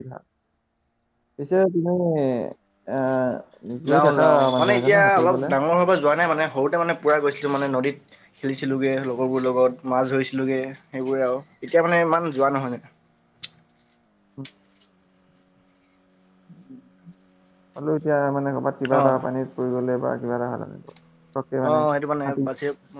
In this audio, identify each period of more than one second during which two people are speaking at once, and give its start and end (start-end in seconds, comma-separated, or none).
3.9-5.5